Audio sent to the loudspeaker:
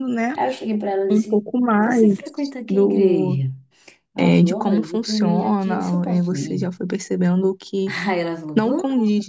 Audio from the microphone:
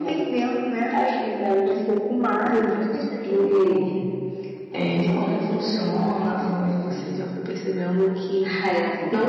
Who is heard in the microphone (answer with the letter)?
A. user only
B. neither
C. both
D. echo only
D